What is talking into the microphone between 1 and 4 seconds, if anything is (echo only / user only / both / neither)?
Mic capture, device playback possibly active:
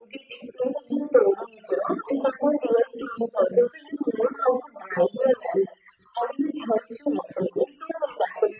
echo only